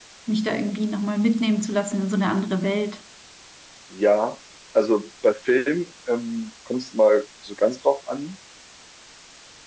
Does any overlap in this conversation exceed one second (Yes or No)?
No